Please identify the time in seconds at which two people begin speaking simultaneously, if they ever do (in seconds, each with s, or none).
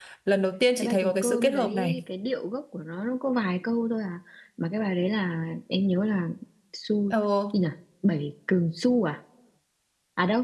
0.8 s